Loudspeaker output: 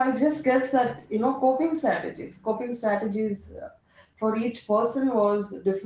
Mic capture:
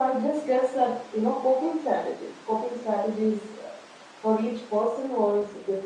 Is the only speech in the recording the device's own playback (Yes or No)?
Yes